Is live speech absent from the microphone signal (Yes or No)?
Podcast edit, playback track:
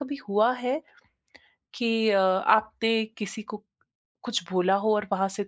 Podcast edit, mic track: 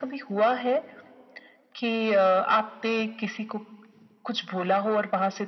Yes